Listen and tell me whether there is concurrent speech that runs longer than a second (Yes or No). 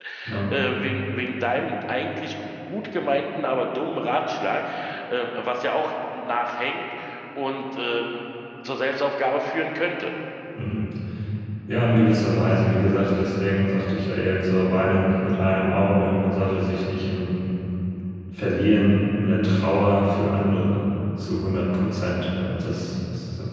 No